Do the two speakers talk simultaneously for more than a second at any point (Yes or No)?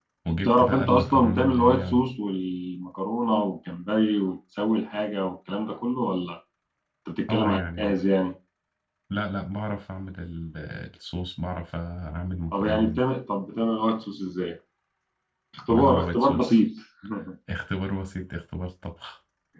Yes